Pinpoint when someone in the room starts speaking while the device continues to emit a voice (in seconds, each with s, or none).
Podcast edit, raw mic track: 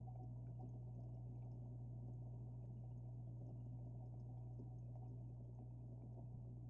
none